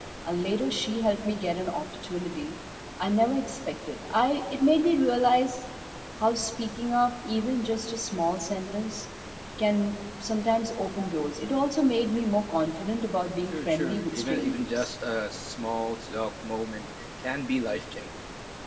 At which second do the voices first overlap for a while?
13.5 s

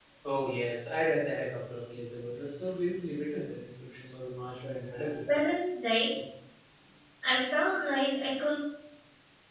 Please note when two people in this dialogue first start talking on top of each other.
none

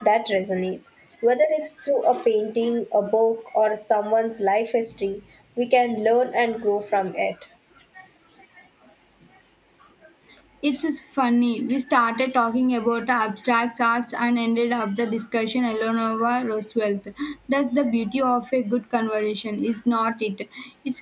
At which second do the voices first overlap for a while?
none

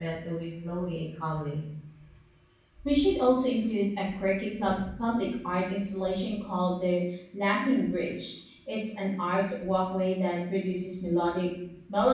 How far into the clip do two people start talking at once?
none

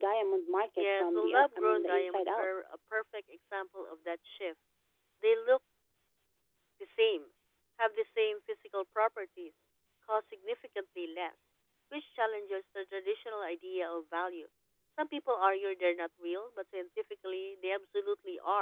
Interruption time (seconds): 0.8 s

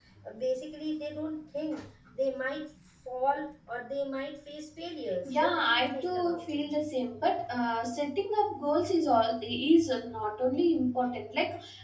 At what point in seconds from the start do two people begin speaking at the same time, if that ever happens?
5.2 s

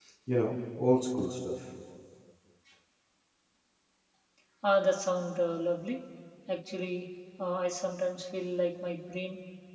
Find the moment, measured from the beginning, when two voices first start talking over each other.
none

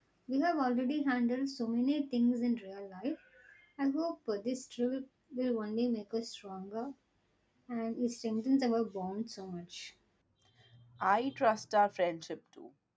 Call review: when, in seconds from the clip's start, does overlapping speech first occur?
none

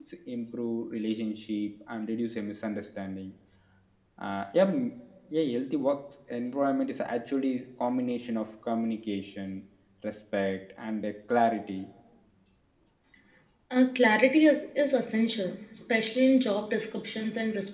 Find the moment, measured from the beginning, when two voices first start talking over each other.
none

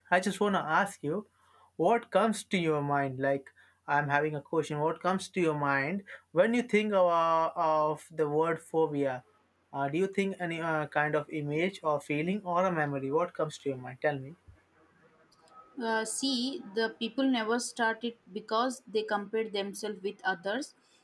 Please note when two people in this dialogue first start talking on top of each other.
none

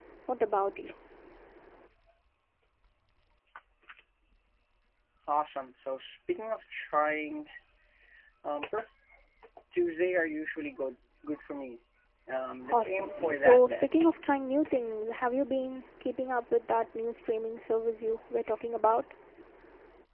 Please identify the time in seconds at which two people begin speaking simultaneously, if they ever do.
12.7 s

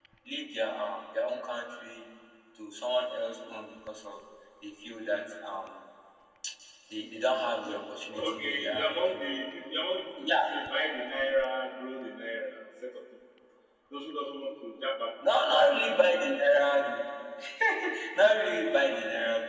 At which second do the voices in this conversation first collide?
7.6 s

